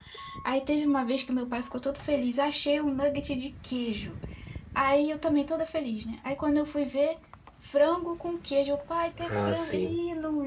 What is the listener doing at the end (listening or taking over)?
listening